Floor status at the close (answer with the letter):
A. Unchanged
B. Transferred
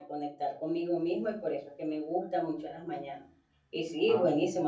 A